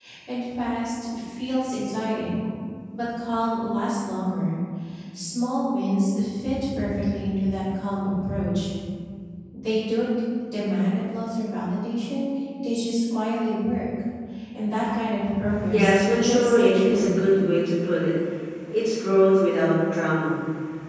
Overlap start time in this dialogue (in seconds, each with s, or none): 15.7 s